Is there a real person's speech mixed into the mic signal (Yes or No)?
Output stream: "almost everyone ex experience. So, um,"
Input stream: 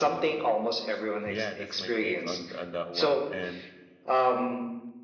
Yes